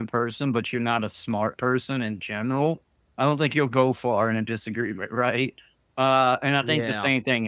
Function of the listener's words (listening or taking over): listening